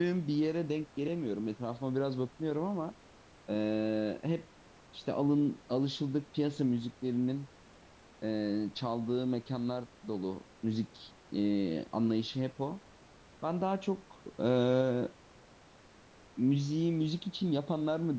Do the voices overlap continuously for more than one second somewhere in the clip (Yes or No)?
No